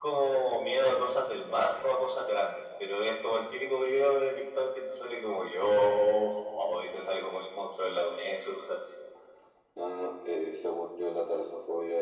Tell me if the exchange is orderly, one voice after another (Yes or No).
Yes